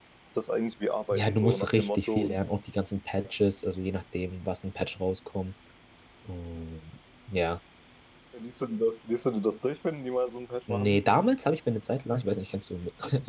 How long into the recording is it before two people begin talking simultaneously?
1.1 s

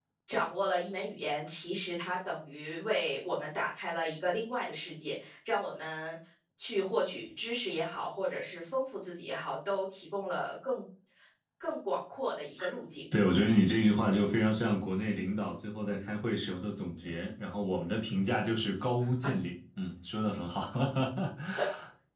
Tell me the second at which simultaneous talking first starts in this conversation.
none

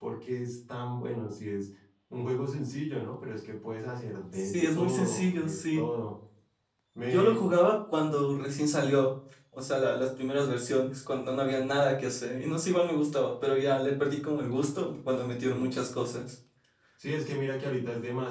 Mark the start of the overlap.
4.3 s

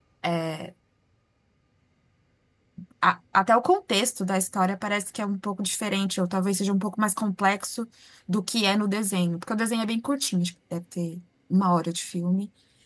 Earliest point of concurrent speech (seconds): none

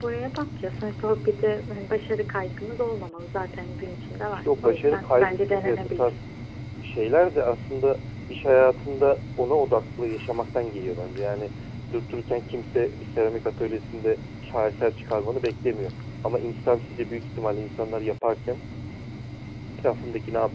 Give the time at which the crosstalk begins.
4.3 s

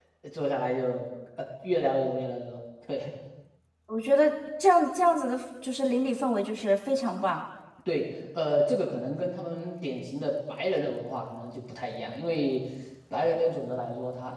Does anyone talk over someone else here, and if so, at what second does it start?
none

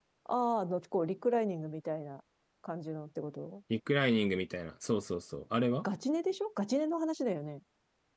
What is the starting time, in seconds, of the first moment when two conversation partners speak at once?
none

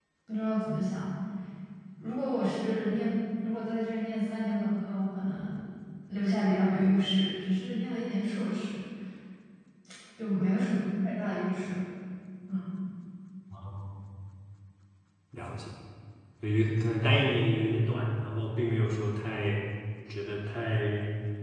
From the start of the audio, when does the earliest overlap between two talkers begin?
none

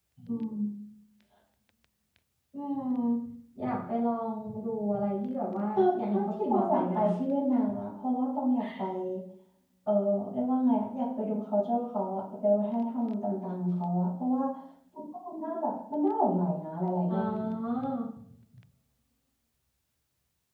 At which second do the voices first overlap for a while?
5.7 s

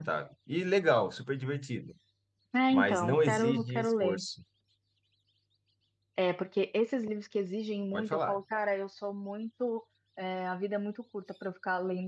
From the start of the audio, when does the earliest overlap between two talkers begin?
2.7 s

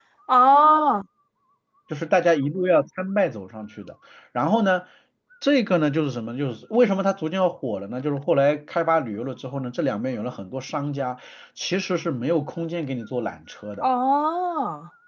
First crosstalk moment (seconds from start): none

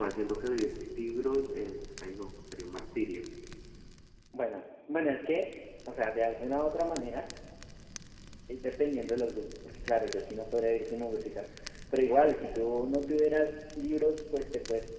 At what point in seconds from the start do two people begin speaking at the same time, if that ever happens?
none

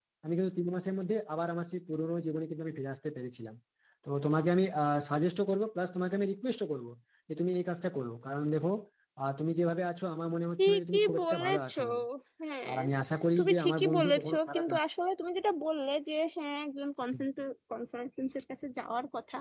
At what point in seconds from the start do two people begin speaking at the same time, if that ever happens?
10.6 s

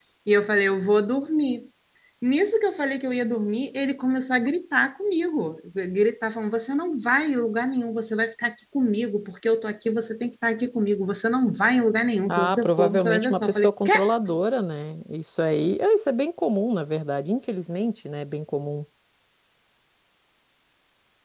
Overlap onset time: 12.3 s

